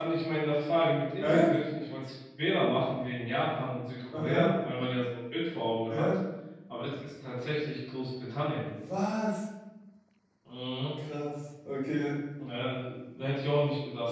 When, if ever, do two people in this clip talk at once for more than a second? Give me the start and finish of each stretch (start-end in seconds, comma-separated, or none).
none